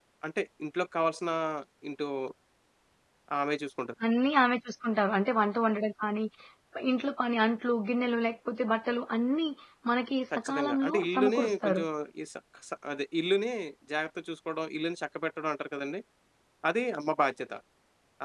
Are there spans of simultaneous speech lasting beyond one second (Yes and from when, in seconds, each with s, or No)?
Yes, from 10.3 s